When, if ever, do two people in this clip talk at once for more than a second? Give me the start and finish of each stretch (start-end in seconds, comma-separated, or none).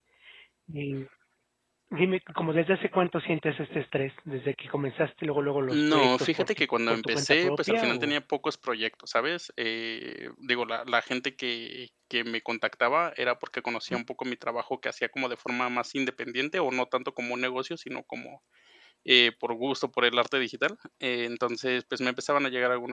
5.7-8.1